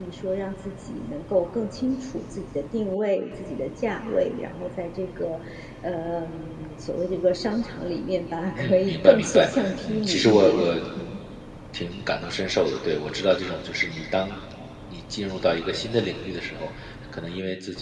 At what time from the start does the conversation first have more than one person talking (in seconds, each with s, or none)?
8.5 s